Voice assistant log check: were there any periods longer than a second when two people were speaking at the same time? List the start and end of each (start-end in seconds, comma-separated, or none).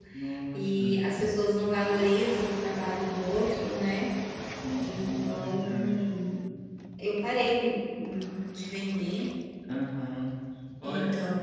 4.8-6.2